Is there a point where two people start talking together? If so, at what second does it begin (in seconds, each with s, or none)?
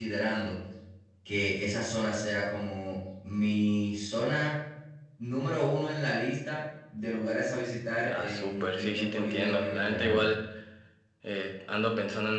8.0 s